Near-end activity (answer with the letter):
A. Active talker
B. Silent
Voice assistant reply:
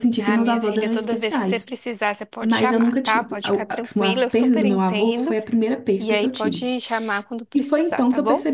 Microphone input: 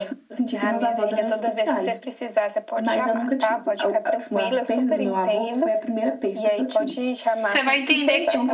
A